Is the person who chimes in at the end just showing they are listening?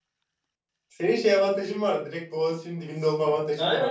No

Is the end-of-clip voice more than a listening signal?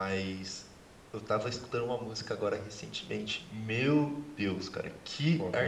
No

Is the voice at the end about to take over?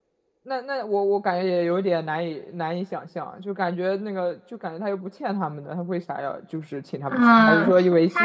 Yes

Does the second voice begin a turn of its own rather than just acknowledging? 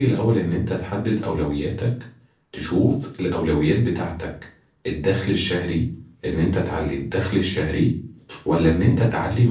No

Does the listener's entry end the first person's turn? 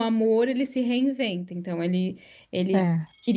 No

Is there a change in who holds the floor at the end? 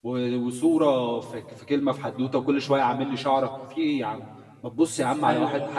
Yes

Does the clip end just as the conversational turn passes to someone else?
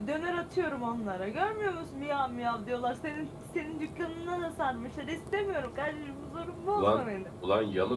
Yes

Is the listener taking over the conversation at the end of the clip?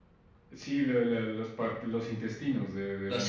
Yes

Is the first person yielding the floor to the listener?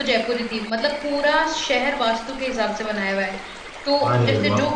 No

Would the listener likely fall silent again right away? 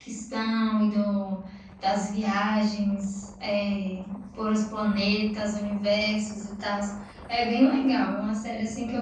No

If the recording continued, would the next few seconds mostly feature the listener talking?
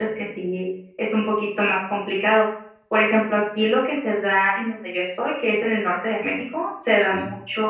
No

